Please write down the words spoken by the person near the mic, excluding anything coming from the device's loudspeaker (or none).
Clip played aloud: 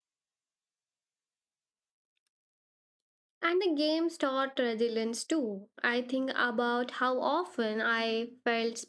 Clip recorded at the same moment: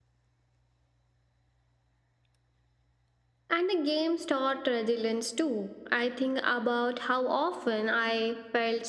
none